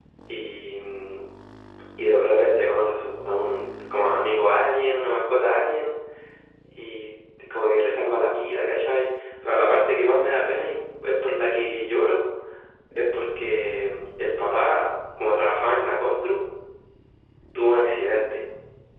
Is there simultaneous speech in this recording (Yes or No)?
No